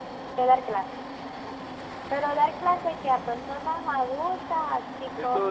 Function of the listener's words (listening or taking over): taking over